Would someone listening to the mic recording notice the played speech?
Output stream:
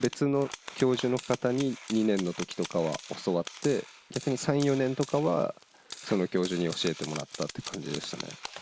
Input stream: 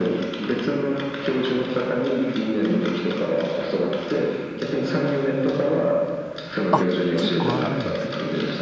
Yes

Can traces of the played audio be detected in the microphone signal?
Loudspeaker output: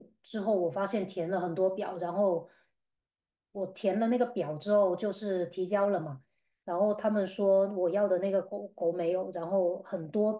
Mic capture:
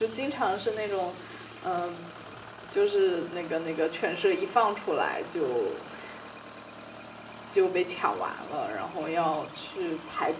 No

